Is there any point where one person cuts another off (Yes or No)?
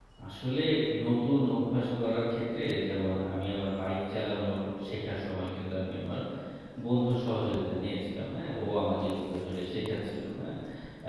No